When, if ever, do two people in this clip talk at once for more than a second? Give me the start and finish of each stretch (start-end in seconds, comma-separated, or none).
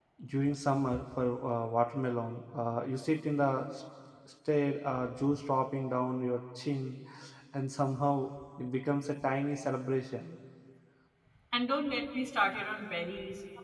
none